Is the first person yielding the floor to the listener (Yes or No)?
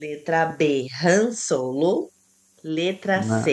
No